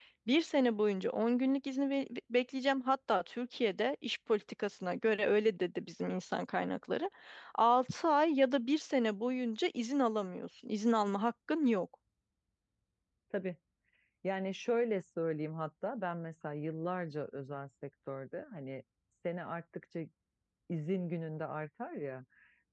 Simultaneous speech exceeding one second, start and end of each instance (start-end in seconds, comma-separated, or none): none